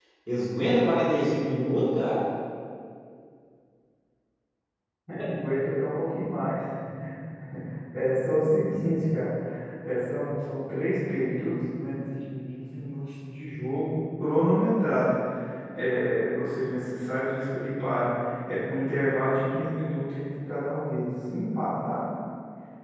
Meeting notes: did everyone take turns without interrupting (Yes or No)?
Yes